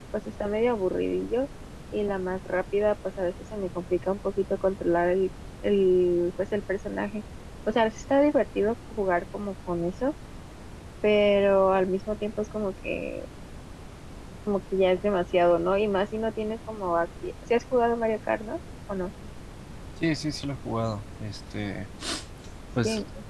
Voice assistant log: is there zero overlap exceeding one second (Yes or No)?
Yes